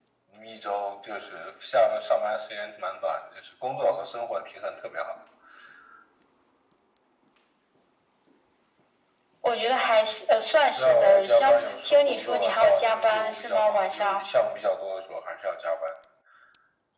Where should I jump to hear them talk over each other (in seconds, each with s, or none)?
10.8 s